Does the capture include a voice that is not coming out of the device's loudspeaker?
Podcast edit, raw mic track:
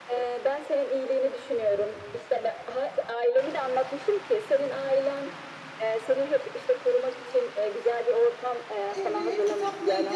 Yes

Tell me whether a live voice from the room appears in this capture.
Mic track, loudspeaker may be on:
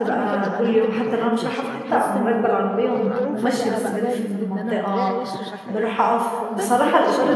Yes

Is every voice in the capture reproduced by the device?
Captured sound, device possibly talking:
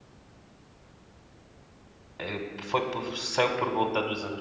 No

